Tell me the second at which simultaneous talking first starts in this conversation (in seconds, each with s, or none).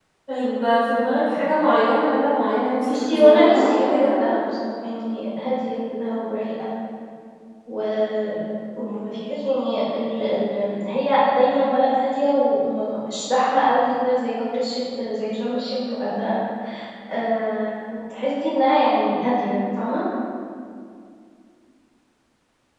2.8 s